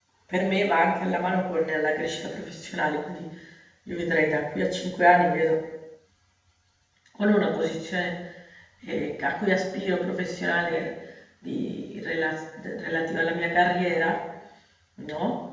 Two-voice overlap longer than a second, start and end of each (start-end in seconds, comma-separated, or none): none